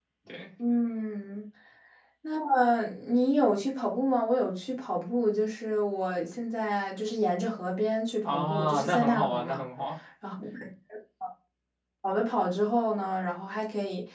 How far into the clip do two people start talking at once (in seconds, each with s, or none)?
8.2 s